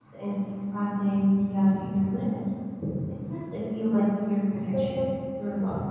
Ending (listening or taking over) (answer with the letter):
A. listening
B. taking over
A